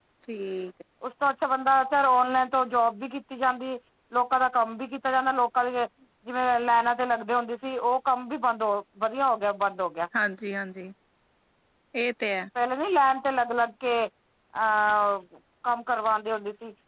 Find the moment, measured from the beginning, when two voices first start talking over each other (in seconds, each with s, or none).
none